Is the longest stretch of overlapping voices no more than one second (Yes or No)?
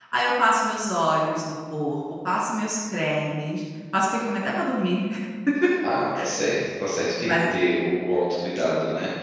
Yes